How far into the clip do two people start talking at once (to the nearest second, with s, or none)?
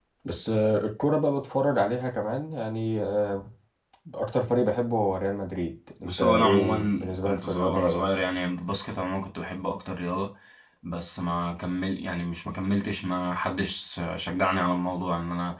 6 s